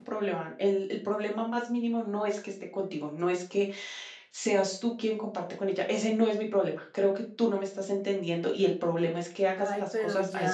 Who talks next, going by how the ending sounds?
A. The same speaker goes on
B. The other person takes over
B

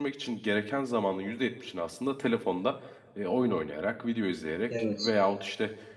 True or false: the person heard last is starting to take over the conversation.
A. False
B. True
A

